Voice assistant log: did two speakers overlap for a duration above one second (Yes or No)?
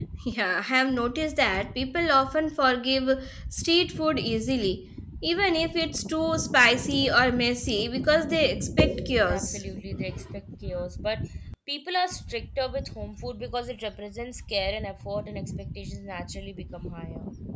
No